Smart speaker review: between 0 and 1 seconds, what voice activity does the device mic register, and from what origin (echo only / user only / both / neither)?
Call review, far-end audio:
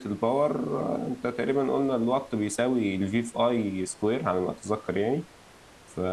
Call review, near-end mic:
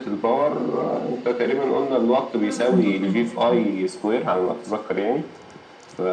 echo only